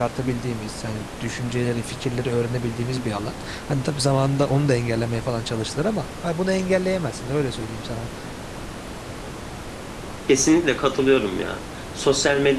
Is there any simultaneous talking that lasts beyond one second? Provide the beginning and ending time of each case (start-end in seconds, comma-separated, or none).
none